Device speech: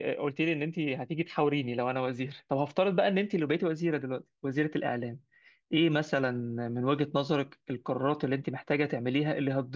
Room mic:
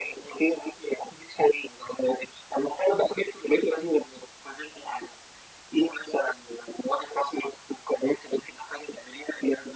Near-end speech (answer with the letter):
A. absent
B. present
A